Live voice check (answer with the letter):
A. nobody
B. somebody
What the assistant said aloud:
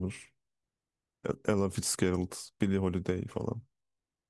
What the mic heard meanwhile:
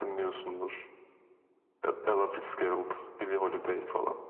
A